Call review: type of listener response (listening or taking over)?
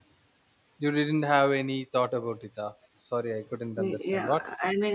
taking over